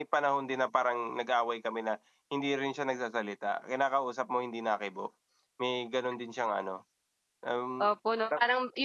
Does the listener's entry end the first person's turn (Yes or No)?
Yes